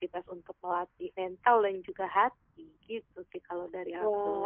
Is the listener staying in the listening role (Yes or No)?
No